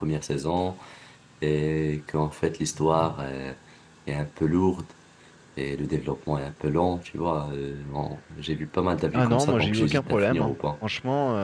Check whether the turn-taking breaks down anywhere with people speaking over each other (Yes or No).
Yes